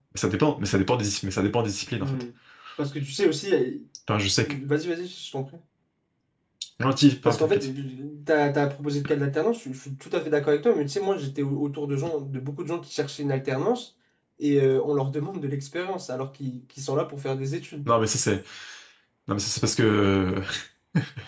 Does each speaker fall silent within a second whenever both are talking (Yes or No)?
Yes